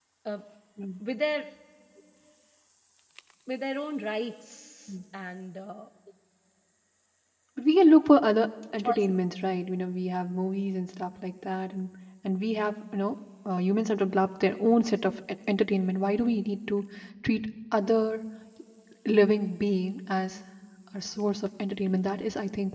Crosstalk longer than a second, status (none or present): none